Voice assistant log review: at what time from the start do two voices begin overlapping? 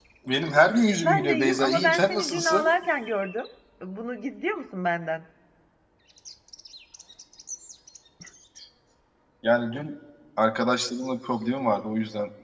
1 s

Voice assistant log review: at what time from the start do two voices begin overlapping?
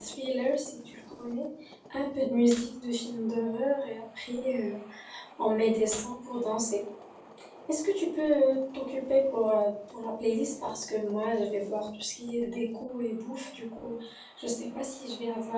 none

